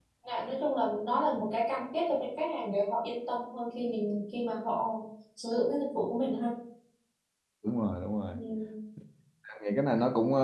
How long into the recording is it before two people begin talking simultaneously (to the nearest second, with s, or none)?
none